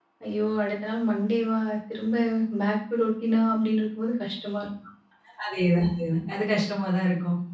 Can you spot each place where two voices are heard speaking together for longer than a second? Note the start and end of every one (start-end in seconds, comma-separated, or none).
none